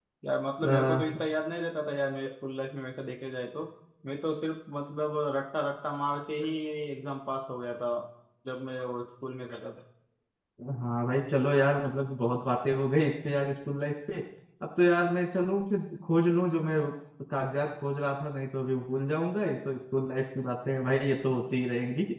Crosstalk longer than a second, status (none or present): none